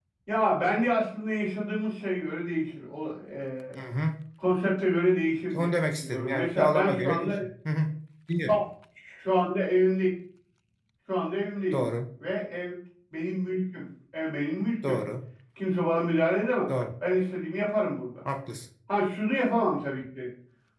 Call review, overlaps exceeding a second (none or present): present